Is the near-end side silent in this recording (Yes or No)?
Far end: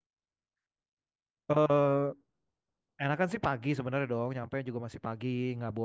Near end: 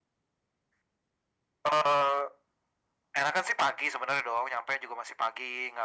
Yes